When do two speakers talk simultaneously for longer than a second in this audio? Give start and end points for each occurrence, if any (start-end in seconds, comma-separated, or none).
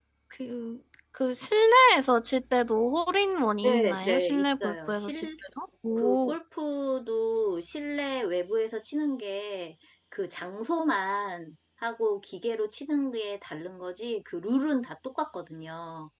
3.6-5.3